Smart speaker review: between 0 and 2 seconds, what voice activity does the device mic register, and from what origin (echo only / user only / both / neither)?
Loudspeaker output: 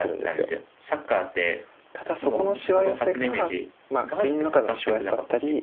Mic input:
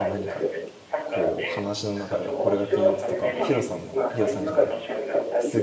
both